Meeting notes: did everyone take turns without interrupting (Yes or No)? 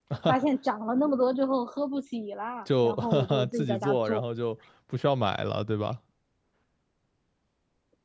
No